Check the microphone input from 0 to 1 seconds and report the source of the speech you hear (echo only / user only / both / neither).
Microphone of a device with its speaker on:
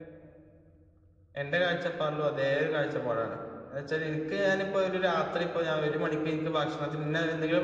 neither